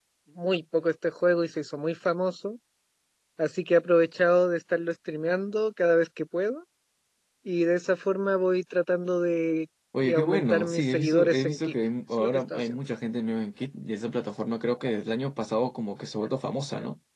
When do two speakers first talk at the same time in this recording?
9.9 s

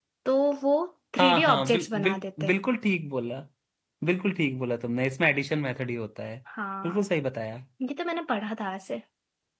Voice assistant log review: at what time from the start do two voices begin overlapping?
1.2 s

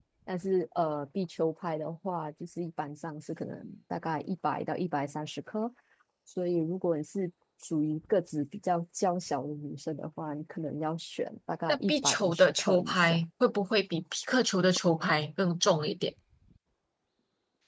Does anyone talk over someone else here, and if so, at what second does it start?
11.7 s

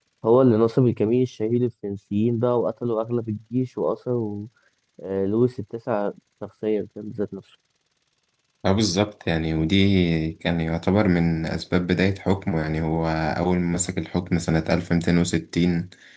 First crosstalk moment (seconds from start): none

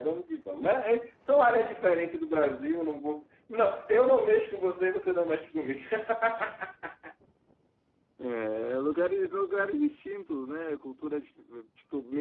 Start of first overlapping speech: none

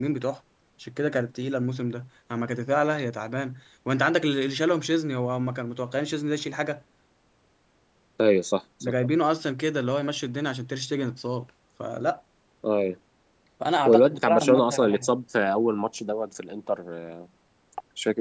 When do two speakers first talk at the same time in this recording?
13.8 s

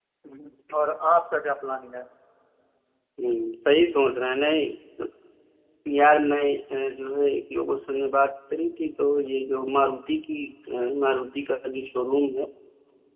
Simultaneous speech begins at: none

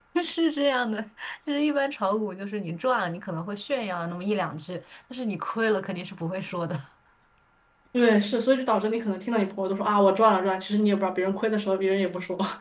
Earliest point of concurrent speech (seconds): none

